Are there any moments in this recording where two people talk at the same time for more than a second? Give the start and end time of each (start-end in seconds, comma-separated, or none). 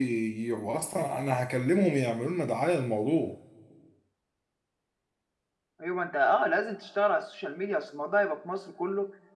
none